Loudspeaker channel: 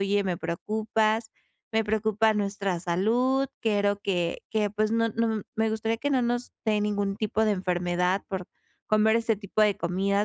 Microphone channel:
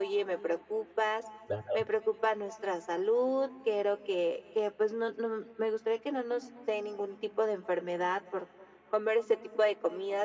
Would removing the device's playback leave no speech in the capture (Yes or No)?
No